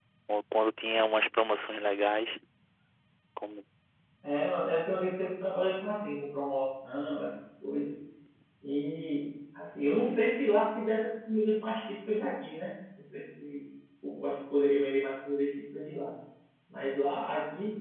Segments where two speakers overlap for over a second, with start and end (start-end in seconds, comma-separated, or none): none